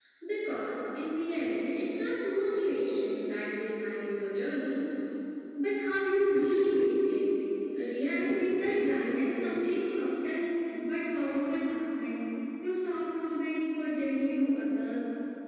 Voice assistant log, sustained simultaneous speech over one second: present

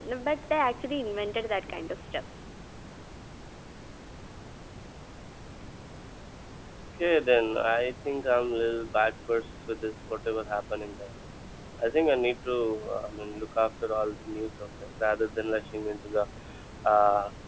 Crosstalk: none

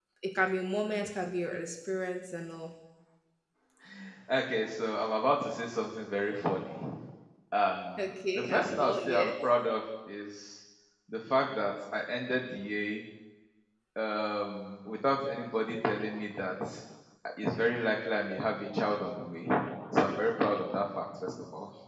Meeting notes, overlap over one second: present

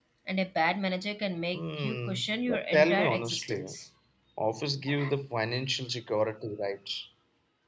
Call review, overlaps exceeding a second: present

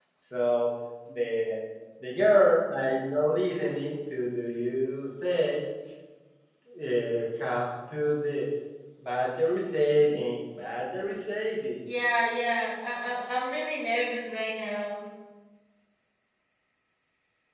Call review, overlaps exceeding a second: none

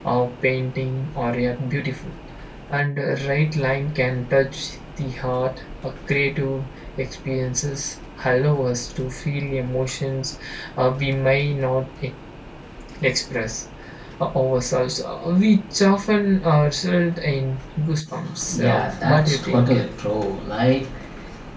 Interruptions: present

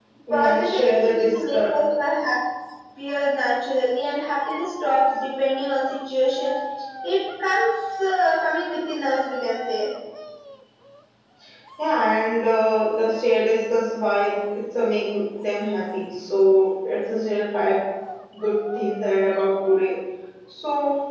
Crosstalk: present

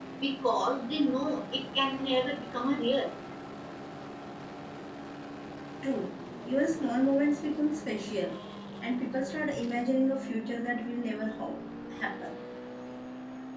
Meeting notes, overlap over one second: none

